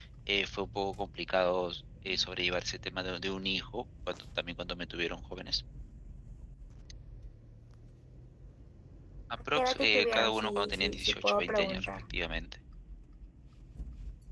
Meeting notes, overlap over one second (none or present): present